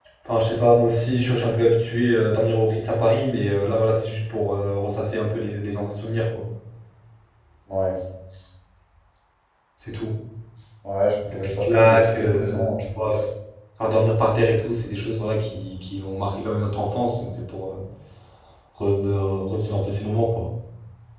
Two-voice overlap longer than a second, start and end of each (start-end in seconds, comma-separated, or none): 11.3-12.8